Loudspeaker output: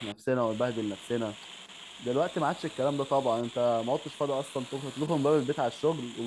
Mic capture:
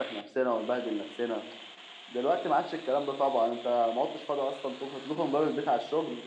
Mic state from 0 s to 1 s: echo only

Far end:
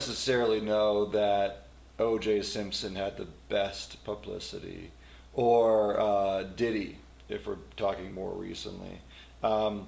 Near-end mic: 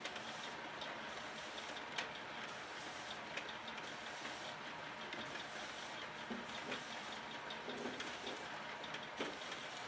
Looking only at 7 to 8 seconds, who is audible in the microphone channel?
neither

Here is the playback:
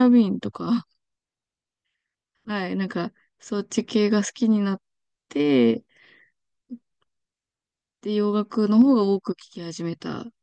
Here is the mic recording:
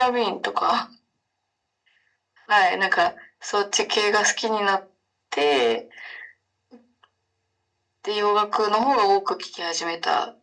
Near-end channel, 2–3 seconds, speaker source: echo only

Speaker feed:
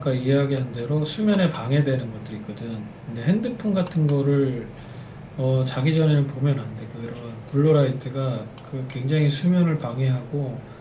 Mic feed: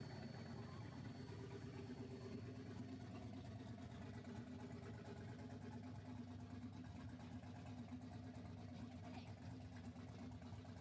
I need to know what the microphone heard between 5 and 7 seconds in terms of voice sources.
neither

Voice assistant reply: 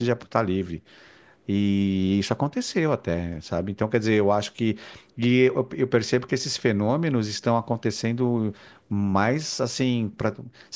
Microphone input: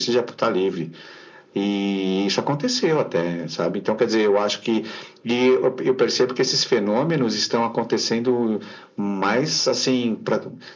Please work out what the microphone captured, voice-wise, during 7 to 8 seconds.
echo only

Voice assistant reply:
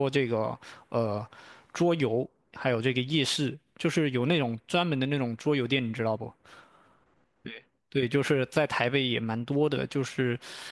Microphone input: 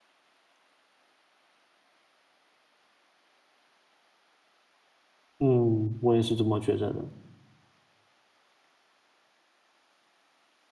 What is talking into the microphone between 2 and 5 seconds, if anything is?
neither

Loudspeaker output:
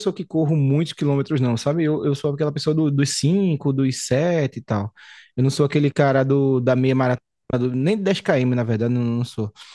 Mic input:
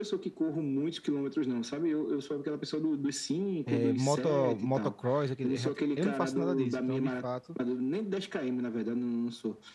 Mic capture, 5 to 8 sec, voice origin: both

